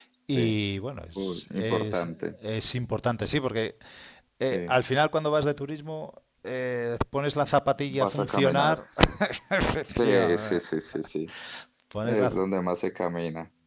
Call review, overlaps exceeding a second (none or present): present